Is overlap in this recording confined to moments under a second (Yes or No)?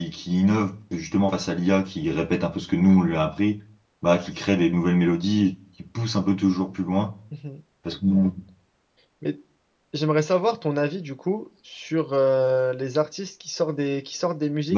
Yes